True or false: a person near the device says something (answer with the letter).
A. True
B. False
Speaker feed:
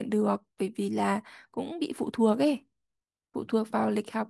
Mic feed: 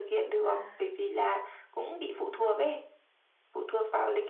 A